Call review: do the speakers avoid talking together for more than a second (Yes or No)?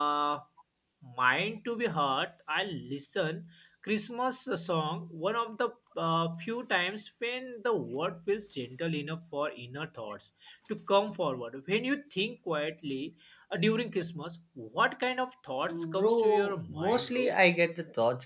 No